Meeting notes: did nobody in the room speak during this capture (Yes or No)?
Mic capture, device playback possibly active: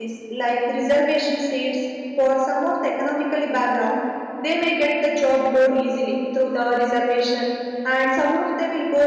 No